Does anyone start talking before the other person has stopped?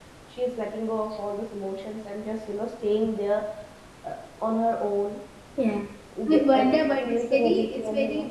Yes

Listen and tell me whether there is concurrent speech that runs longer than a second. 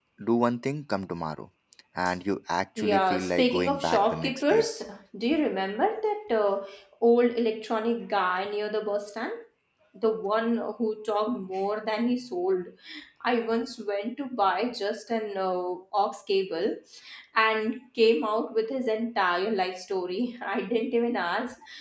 Yes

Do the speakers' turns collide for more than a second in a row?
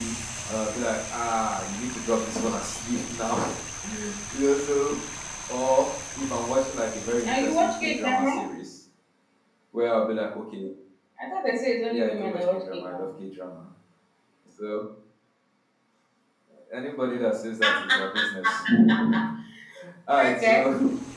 Yes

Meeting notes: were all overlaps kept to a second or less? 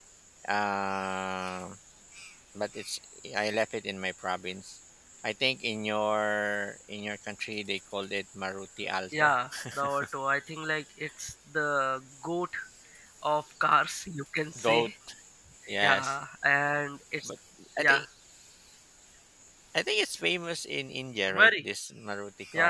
Yes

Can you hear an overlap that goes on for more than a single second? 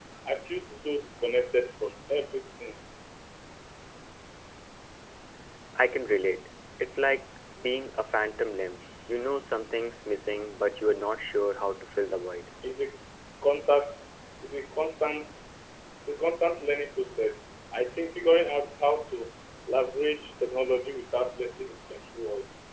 No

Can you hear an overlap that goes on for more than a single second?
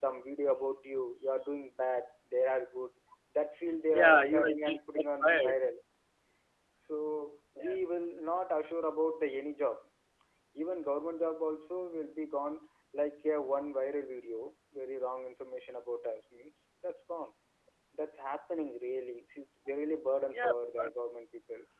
Yes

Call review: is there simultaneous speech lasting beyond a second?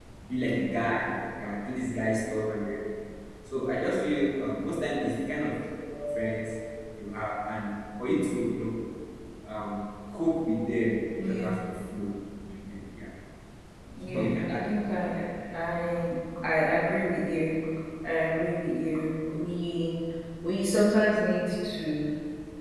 Yes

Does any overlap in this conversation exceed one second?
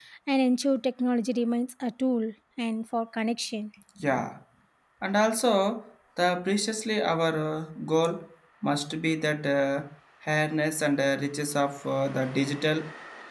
No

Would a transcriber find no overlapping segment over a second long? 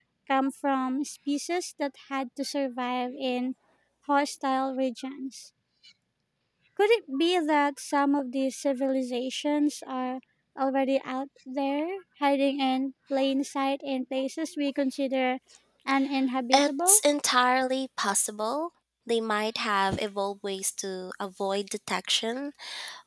Yes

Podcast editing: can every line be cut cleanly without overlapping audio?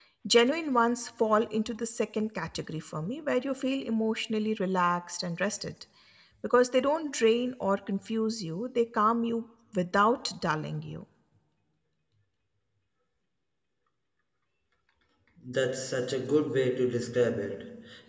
Yes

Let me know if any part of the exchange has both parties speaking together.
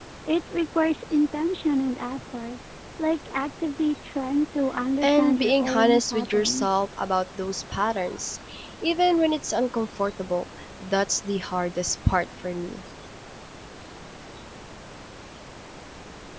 Yes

